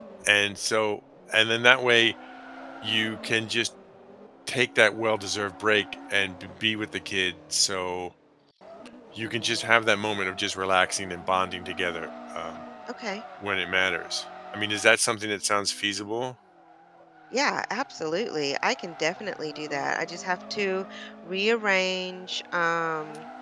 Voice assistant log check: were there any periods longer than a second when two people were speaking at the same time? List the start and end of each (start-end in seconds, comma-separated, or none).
none